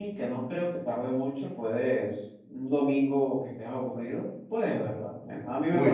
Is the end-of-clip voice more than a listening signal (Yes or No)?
Yes